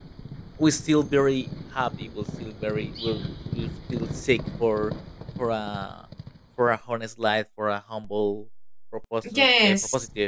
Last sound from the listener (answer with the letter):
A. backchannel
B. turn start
A